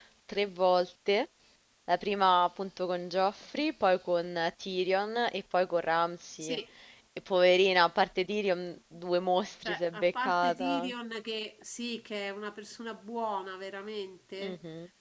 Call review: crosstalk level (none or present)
present